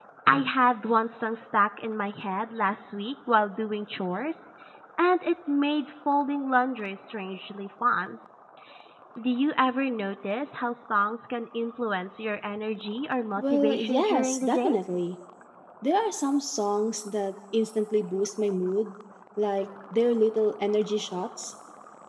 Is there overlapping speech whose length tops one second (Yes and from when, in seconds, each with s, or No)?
Yes, from 13.4 s